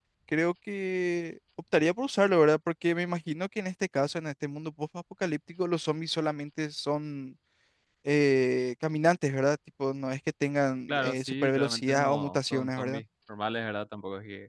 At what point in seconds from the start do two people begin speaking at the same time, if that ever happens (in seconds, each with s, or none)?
10.9 s